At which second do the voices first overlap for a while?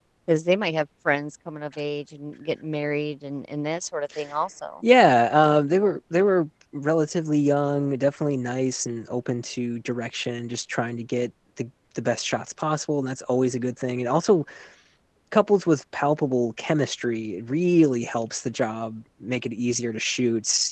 none

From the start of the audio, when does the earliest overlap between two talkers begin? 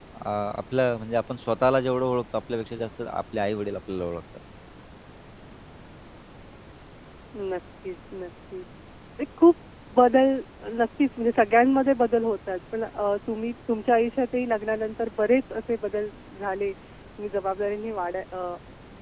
none

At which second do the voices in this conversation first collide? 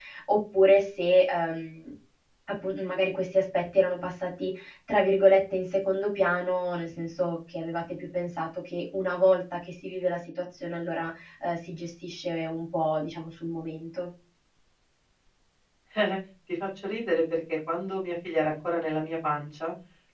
none

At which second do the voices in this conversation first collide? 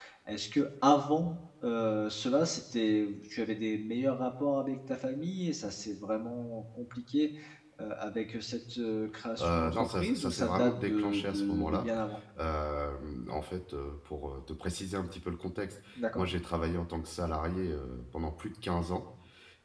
9.4 s

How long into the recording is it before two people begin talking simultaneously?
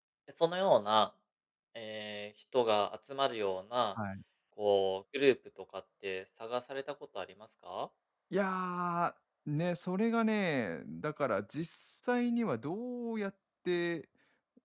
none

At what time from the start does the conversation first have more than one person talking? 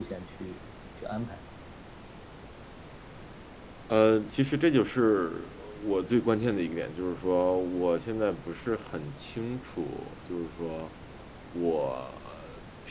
none

